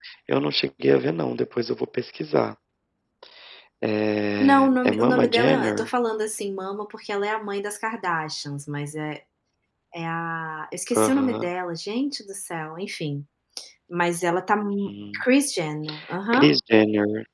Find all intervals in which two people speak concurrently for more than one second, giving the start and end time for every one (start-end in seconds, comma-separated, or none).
4.4-5.9